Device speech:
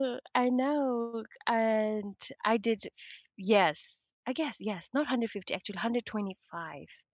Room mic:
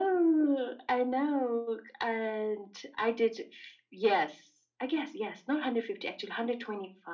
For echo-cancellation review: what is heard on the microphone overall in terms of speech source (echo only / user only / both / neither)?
echo only